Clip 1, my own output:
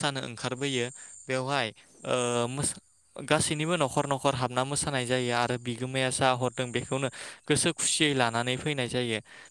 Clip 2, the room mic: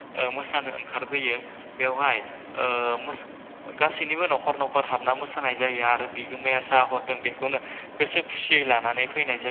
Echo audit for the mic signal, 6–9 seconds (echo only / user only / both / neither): echo only